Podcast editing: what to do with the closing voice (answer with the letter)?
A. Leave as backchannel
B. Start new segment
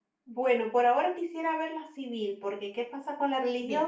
A